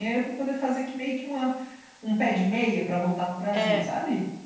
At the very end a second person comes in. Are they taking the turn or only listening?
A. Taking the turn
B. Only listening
A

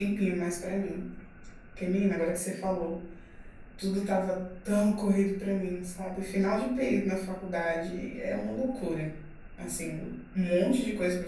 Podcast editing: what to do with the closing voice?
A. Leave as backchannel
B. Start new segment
A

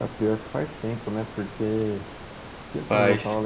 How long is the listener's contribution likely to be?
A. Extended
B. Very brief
B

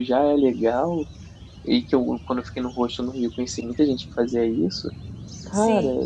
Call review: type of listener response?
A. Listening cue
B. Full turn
A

